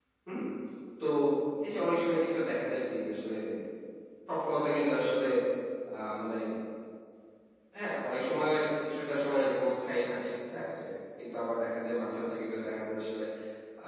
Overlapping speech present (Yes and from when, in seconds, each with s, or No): No